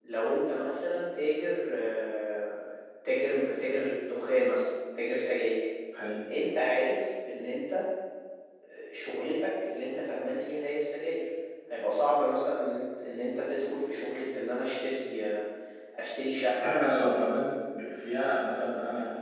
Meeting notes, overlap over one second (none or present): none